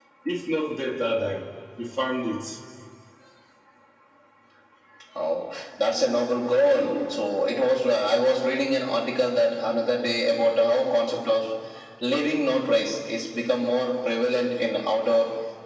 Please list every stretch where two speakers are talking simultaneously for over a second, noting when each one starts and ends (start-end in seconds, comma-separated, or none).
none